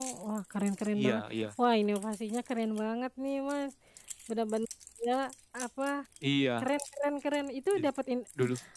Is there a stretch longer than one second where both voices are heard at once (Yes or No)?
No